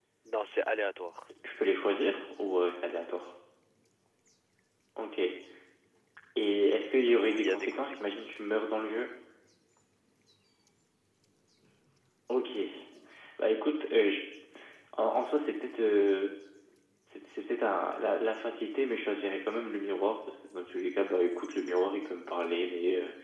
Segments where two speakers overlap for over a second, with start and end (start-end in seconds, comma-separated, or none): 7.1-8.3